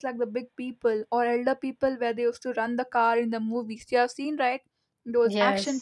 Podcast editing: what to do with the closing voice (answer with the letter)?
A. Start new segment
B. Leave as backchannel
B